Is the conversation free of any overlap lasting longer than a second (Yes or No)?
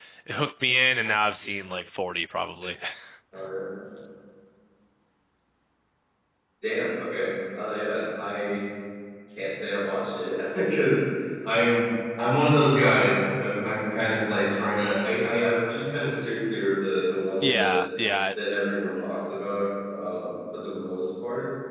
Yes